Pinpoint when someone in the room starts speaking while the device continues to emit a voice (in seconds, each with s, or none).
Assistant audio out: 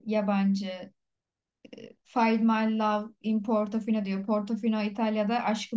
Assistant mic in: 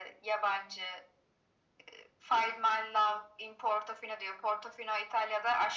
none